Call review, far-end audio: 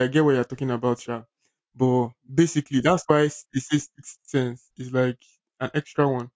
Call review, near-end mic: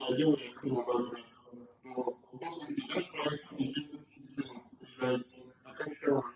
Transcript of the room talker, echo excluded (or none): none